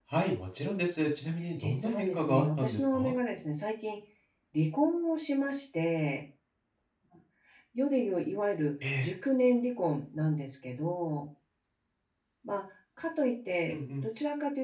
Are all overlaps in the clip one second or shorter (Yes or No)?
No